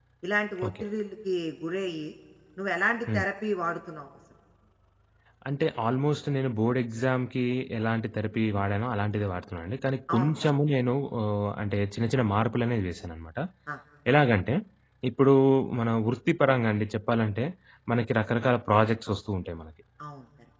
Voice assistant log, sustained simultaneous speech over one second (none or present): none